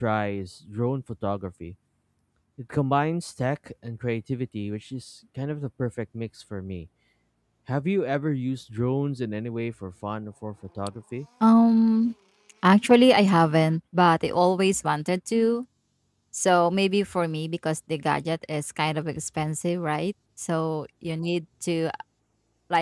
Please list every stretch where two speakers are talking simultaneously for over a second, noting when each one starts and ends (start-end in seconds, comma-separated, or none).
none